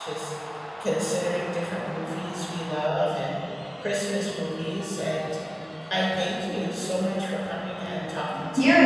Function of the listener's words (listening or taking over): taking over